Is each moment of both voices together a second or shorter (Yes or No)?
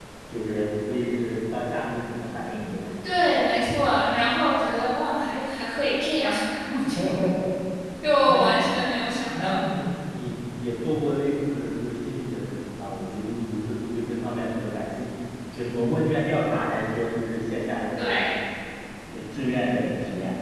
Yes